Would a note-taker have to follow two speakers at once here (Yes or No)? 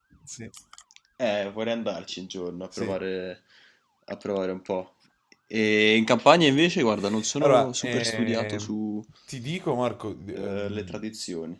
Yes